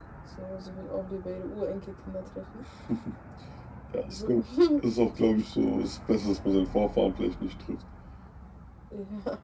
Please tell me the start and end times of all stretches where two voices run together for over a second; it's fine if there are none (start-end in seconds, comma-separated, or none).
none